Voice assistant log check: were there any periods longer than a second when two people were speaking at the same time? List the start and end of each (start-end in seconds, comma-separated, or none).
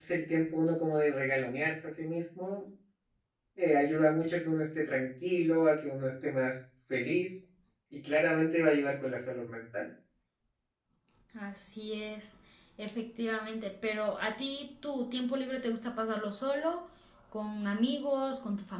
none